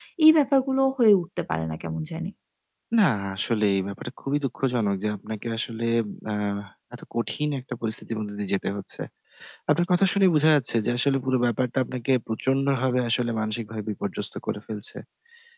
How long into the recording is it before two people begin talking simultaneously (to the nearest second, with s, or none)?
none